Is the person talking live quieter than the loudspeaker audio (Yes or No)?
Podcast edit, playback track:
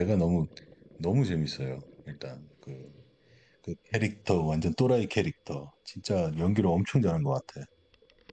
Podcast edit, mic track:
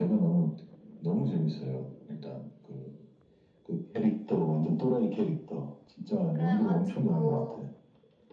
Yes